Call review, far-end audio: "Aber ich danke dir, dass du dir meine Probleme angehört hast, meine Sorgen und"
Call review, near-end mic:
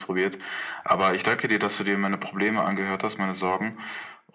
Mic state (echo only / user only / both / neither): echo only